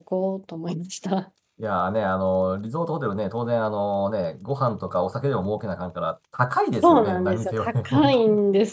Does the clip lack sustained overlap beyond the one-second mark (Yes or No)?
No